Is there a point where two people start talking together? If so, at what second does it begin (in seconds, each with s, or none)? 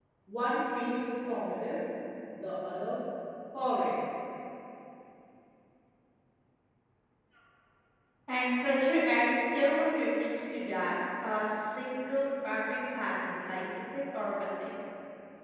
none